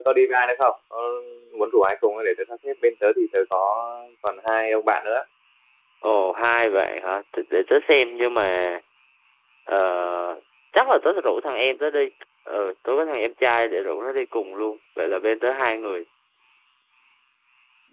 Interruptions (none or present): none